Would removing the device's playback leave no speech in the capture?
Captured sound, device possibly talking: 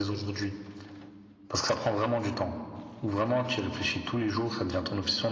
Yes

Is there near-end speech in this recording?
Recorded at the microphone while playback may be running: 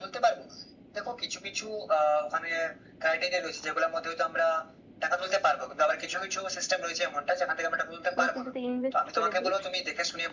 Yes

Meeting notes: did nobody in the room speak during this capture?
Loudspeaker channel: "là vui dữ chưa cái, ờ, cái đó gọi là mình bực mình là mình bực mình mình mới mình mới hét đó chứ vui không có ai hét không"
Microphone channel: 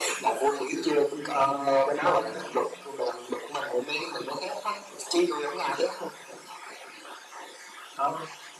No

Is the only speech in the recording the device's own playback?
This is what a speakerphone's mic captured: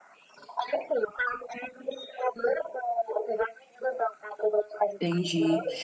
No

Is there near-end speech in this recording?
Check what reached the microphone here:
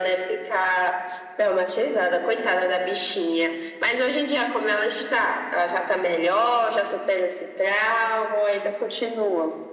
No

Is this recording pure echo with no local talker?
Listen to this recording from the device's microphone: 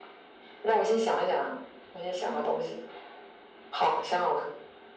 Yes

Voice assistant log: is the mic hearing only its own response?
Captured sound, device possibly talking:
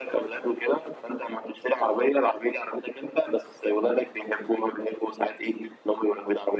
Yes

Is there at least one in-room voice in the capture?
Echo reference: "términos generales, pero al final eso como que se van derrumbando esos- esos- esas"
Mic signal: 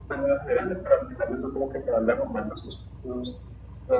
No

